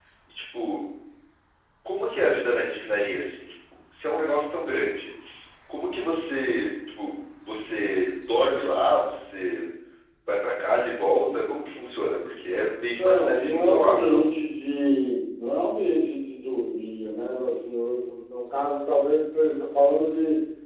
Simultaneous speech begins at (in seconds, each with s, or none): 12.9 s